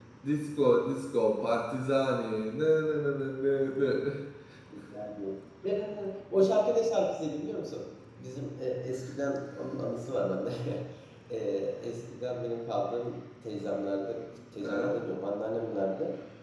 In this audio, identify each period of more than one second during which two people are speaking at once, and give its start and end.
none

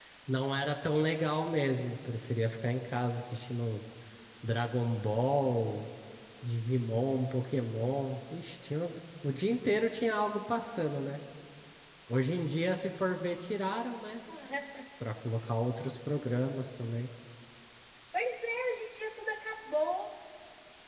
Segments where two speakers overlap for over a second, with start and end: none

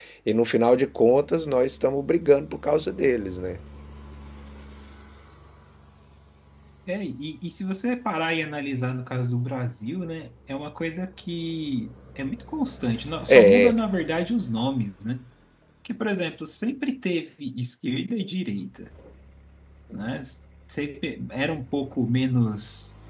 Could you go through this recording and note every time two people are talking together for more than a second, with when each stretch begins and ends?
none

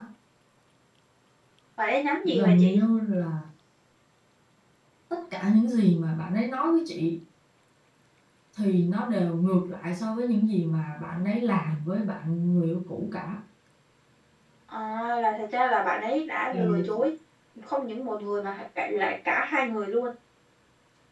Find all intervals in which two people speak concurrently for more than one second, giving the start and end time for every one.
none

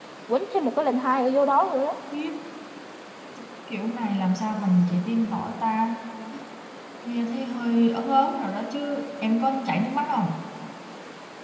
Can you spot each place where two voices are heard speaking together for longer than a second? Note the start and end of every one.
none

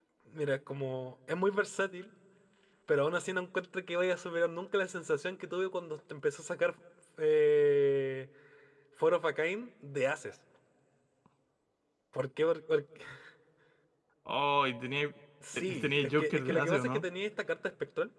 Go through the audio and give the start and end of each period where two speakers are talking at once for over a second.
15.5-17.0

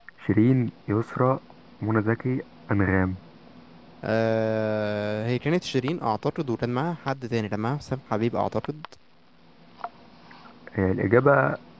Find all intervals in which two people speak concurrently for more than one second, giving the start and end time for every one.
none

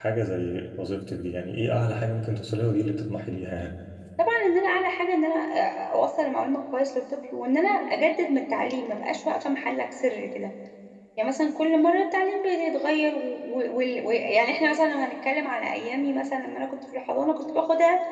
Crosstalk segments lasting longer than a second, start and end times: none

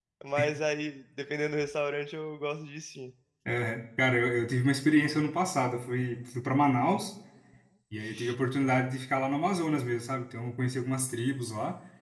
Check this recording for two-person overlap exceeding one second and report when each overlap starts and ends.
none

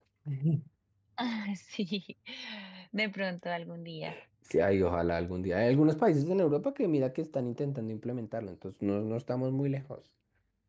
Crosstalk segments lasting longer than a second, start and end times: none

